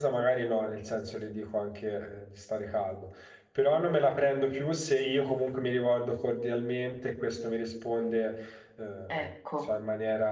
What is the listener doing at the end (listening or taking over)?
listening